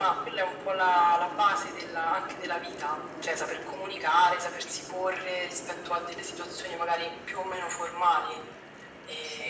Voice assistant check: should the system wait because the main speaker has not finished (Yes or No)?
Yes